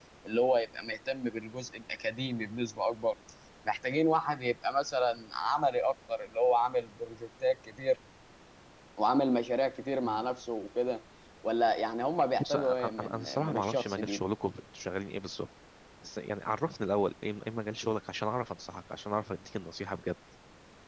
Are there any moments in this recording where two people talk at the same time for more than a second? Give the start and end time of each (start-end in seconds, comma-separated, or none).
12.4-14.2